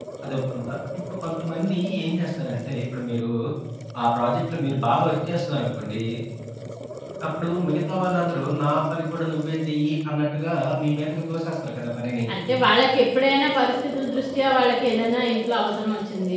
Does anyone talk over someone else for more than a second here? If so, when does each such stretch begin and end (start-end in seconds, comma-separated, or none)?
none